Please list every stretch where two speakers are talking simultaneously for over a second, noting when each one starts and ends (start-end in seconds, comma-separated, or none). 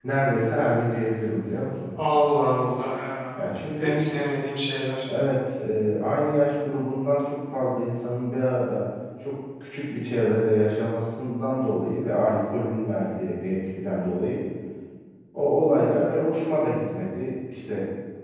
none